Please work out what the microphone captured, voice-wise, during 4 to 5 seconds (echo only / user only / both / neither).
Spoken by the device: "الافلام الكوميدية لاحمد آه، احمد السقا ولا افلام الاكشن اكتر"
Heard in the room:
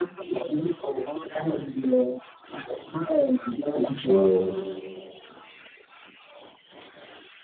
both